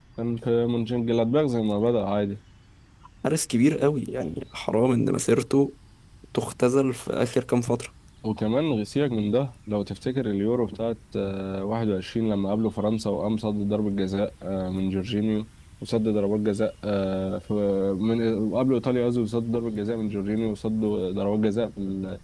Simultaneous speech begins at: none

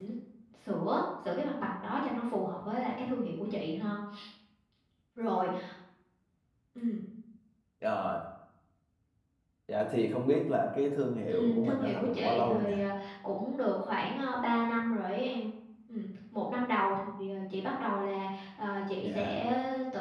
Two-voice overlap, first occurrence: 11.3 s

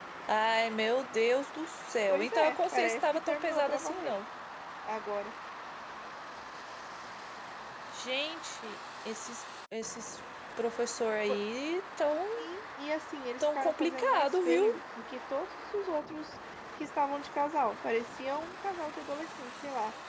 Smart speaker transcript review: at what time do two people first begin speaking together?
2.1 s

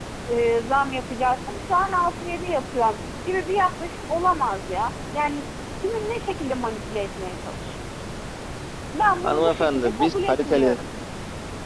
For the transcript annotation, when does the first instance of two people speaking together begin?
9.2 s

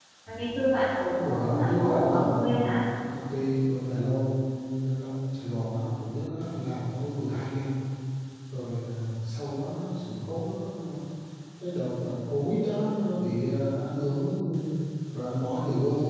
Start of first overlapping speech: 1.1 s

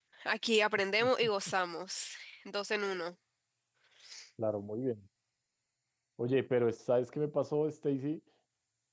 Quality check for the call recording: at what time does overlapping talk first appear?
none

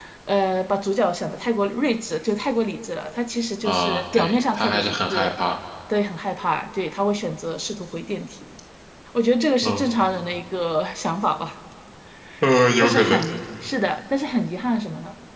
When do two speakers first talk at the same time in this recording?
3.6 s

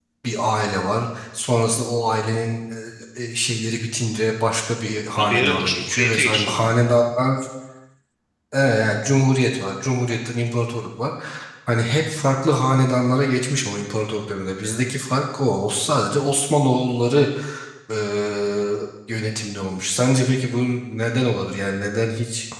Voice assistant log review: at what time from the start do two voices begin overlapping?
5.1 s

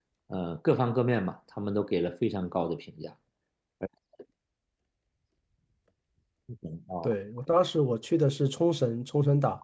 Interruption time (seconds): none

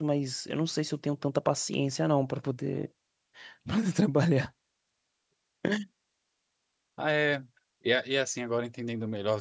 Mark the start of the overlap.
none

